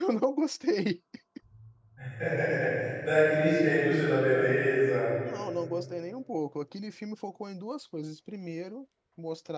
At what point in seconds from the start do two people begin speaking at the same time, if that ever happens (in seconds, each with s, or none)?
none